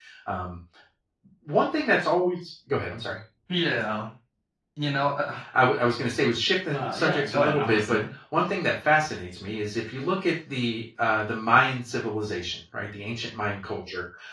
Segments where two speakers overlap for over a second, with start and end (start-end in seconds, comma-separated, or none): 6.7-8.0